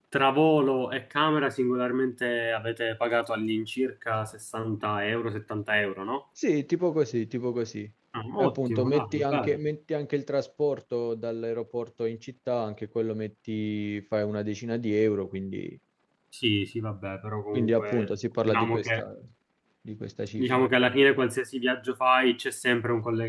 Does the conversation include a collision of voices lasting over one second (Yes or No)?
Yes